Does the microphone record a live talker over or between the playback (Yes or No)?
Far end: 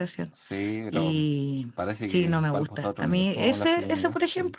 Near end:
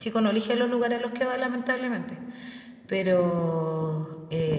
Yes